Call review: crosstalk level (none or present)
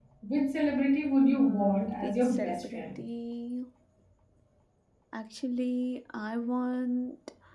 present